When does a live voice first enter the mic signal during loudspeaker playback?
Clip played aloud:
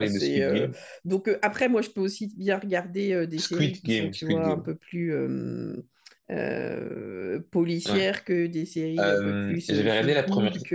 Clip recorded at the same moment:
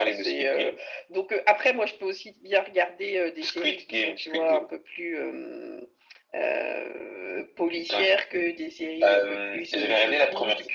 none

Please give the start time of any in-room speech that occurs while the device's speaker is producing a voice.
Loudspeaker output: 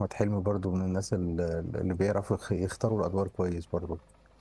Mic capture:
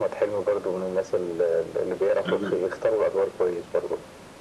2 s

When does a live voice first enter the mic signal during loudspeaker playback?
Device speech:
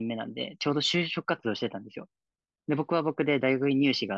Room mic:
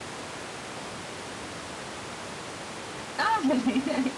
3 s

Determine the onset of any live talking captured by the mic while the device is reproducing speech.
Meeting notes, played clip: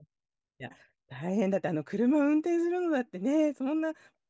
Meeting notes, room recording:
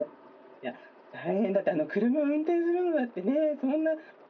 none

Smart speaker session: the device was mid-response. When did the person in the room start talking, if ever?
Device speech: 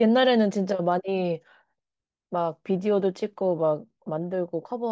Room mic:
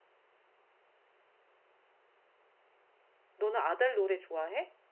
3 s

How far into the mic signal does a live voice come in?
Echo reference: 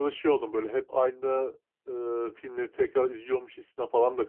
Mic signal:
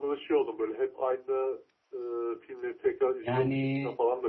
3 s

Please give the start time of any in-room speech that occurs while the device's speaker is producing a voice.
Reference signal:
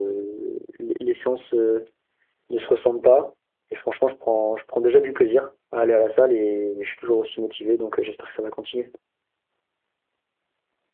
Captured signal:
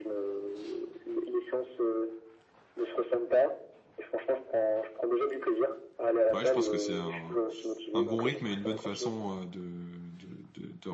6 s

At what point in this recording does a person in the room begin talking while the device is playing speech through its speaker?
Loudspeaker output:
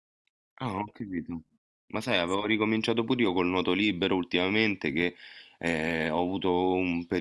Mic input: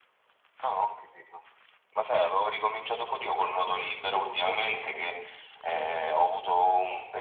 none

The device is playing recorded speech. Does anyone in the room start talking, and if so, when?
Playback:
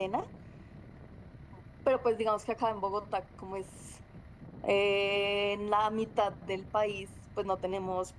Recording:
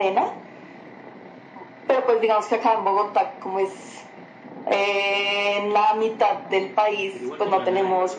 7 s

